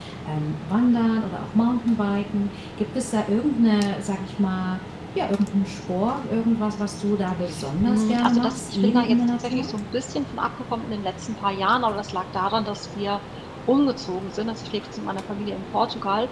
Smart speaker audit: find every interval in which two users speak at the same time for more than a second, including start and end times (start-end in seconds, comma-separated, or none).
7.8-9.7